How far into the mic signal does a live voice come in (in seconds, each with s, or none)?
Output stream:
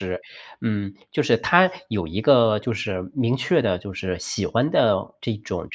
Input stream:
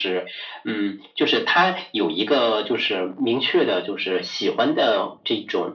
none